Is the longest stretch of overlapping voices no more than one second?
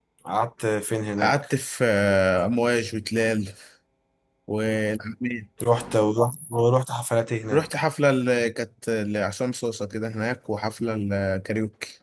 Yes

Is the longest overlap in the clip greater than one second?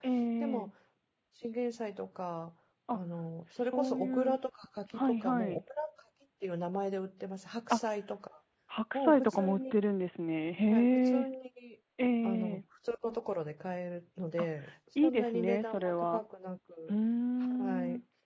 Yes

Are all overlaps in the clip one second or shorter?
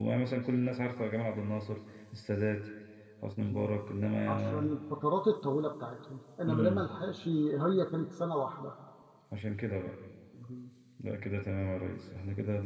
Yes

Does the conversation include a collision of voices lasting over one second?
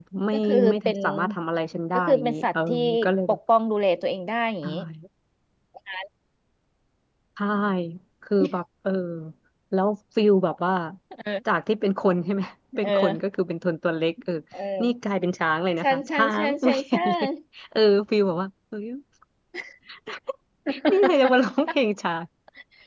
Yes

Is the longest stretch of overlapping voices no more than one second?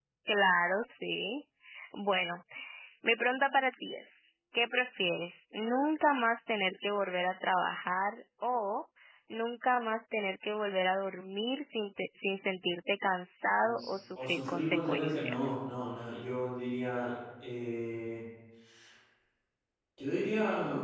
No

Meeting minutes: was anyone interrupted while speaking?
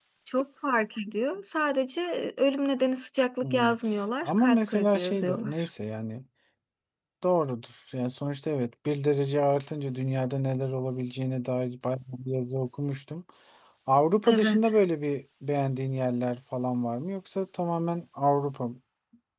Yes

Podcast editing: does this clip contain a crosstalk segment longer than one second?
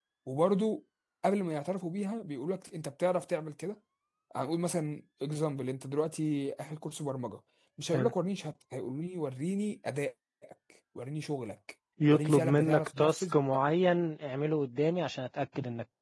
Yes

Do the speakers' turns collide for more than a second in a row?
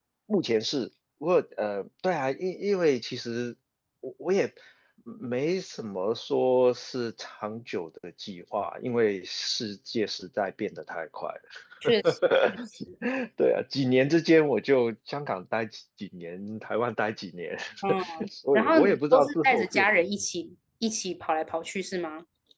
Yes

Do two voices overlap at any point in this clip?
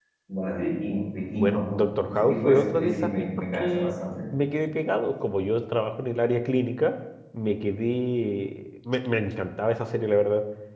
Yes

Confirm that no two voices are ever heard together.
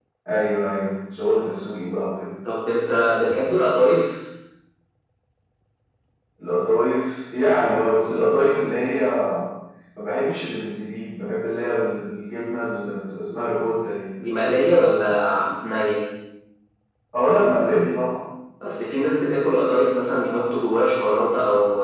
Yes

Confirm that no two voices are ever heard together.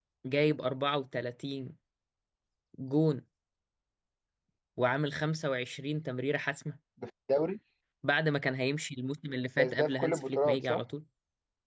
No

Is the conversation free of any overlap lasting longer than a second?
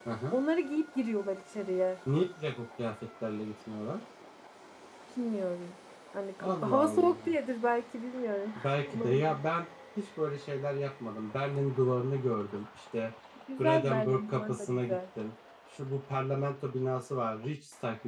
No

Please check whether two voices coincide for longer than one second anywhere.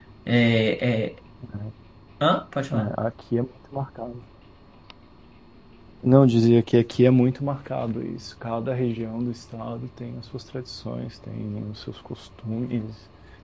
No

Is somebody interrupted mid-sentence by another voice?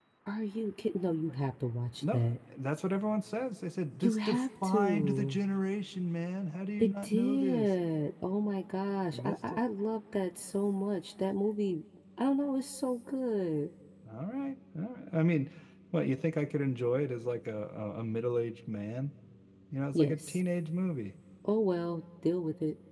Yes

